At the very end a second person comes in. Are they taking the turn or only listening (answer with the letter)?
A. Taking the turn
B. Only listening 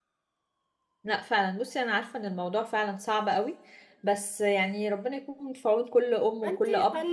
A